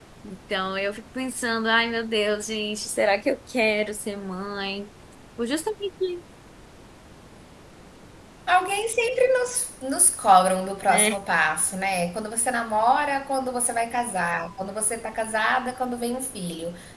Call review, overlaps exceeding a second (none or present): none